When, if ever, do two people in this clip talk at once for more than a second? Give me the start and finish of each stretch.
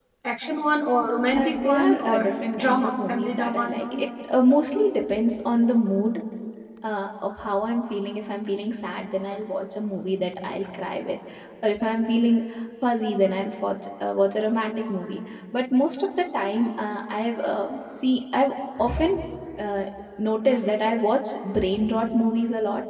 1.3-4.0

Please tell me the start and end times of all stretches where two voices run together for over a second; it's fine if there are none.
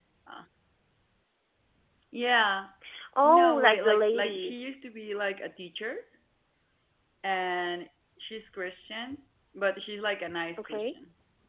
3.2-4.5

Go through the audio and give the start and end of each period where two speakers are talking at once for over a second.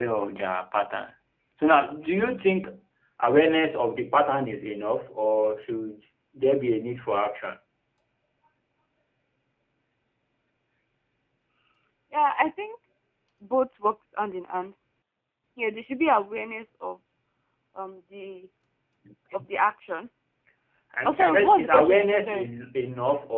21.0-22.5

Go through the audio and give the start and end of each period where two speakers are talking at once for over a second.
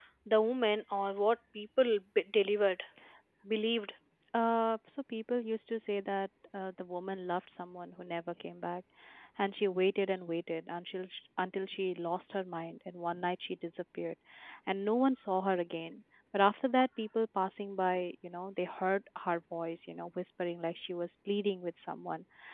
none

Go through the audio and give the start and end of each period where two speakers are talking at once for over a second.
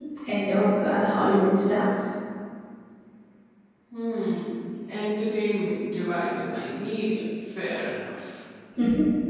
none

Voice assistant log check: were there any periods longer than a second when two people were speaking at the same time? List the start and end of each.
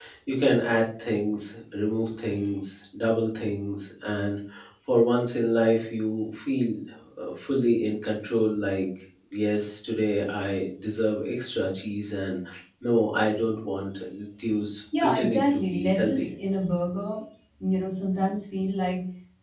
15.0-16.3

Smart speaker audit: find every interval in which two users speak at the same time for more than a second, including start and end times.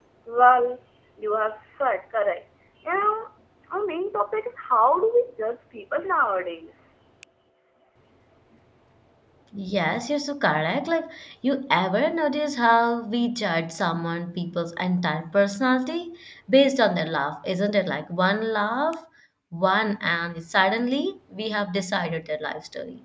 none

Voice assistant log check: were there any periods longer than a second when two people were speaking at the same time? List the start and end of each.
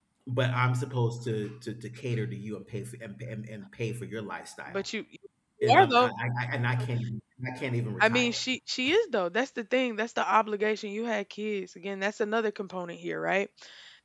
none

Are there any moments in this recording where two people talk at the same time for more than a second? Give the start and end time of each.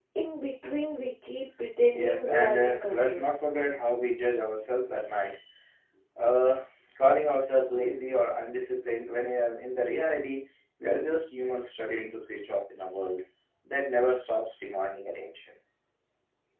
1.9-3.2

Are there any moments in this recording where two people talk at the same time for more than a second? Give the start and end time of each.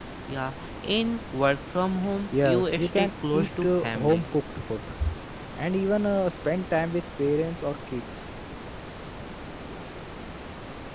2.4-4.3

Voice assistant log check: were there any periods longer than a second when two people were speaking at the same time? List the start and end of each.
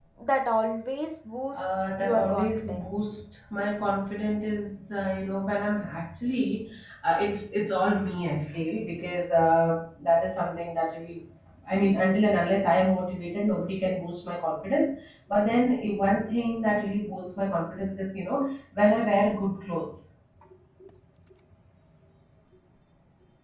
1.6-3.0

